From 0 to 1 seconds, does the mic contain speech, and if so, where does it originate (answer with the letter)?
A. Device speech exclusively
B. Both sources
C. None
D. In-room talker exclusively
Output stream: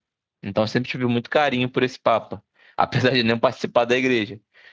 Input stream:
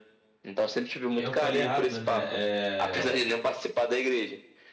A